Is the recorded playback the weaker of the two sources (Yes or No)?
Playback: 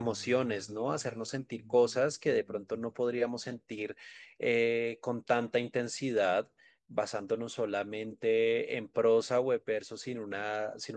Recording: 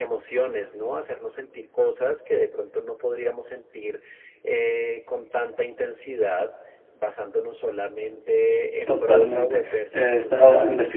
Yes